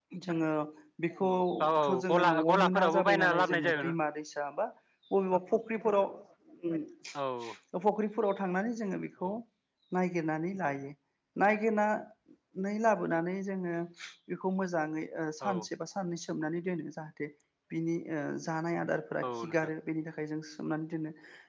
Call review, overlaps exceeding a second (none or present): present